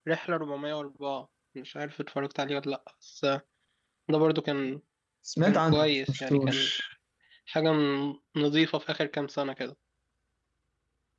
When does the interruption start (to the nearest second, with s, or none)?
5 s